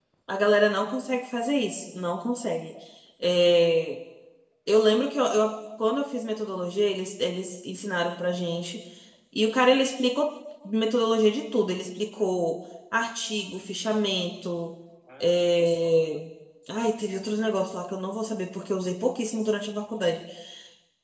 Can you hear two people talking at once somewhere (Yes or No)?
No